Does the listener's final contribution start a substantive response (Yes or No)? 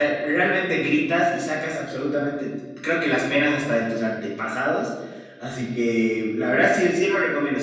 No